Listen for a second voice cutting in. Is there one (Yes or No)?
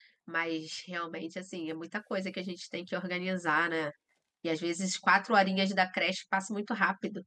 No